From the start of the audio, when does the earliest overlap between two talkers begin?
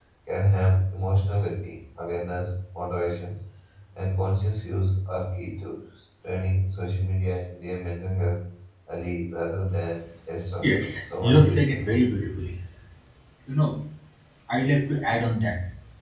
10.6 s

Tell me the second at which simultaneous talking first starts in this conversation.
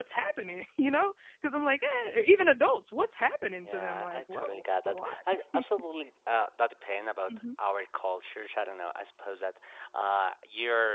3.6 s

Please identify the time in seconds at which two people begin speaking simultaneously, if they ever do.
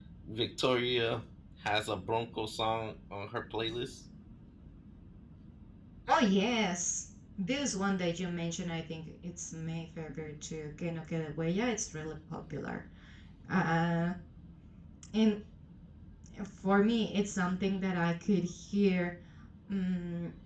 none

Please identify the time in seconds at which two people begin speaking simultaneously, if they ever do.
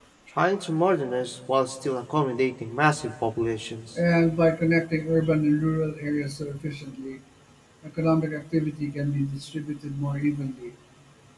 none

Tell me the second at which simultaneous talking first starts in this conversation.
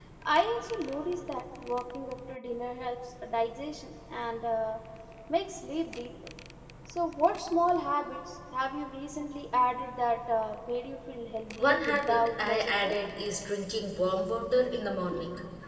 11.6 s

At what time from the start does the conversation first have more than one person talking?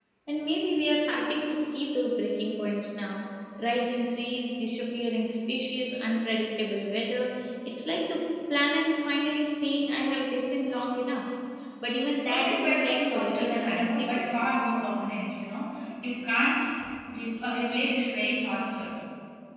12.3 s

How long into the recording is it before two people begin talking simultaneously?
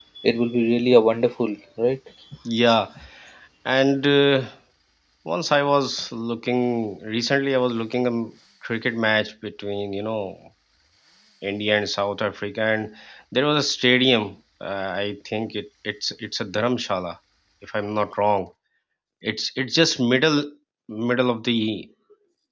none

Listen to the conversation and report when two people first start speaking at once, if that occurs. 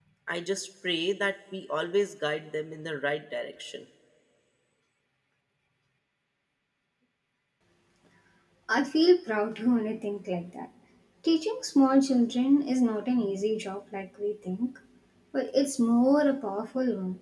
none

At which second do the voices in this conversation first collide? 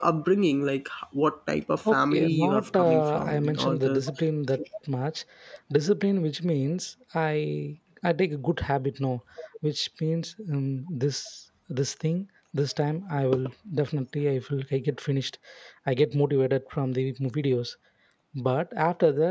1.8 s

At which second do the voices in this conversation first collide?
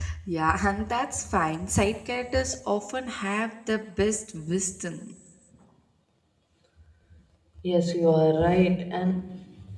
none

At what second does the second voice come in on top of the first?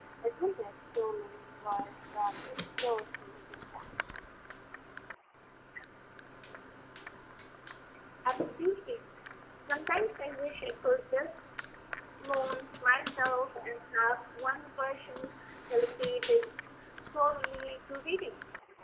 none

